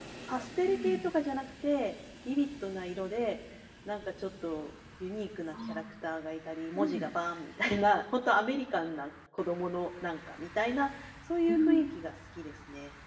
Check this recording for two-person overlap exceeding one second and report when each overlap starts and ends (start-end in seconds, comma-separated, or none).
none